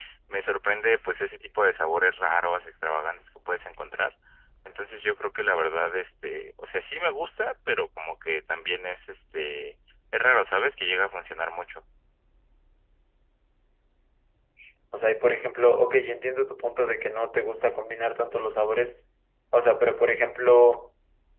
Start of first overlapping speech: none

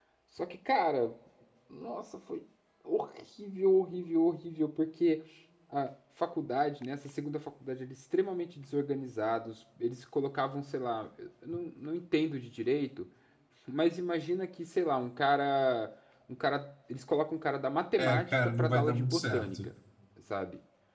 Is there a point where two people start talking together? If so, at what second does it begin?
18 s

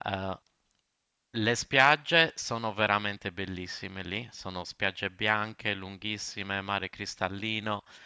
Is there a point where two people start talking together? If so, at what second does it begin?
none

